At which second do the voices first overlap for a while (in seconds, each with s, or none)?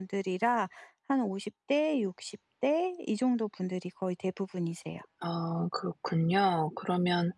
none